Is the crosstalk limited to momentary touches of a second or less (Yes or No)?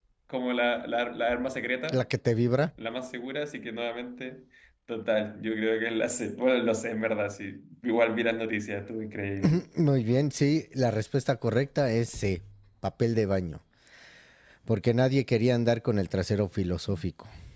Yes